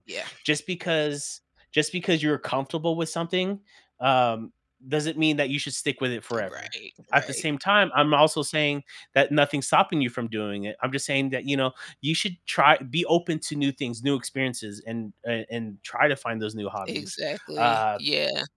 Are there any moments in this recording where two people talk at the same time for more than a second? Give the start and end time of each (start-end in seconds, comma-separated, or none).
none